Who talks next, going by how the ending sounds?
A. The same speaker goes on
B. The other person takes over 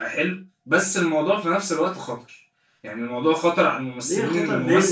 B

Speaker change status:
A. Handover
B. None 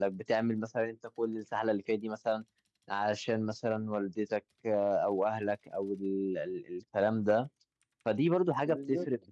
B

